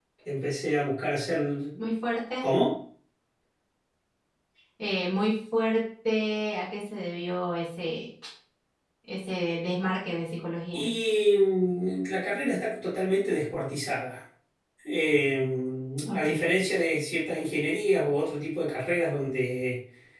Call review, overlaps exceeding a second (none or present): none